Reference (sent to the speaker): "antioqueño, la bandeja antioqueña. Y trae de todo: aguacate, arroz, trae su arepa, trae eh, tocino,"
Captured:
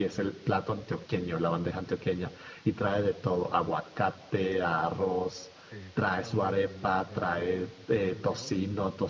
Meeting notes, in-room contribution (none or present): present